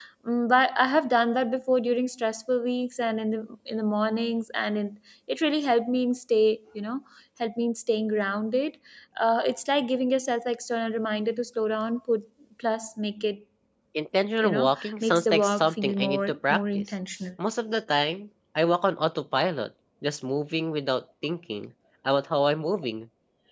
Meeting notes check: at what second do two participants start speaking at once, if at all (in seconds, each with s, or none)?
14.4 s